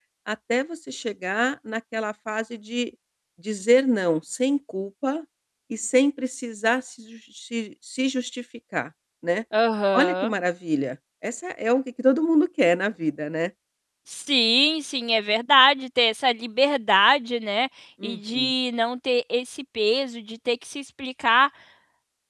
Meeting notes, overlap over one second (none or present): none